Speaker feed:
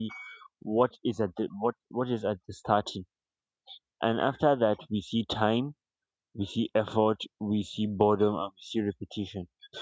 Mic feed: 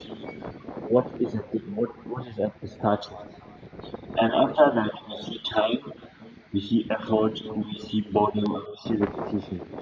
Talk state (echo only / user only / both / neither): echo only